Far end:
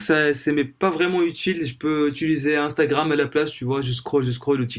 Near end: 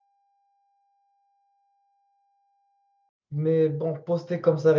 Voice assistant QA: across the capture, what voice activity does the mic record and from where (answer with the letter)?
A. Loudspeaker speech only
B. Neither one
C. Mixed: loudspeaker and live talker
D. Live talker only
D